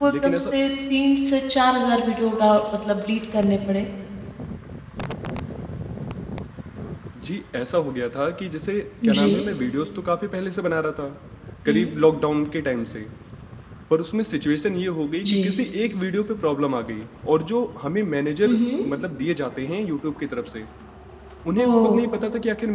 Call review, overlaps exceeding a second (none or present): none